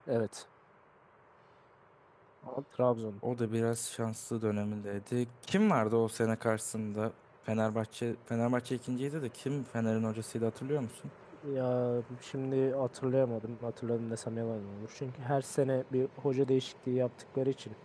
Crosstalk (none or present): none